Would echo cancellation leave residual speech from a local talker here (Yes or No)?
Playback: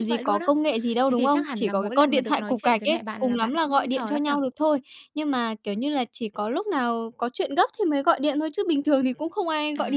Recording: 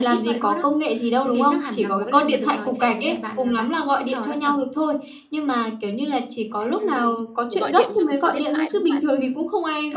Yes